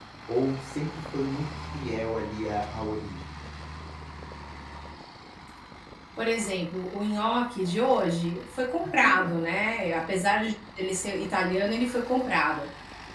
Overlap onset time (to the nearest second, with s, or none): none